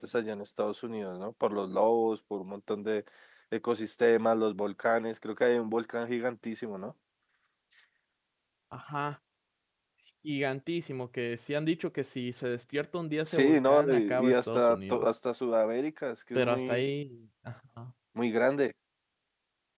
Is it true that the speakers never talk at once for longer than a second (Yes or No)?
No